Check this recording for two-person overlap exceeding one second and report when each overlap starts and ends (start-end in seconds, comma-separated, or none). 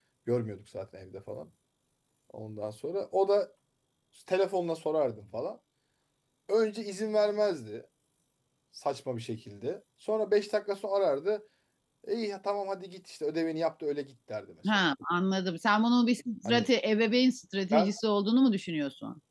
none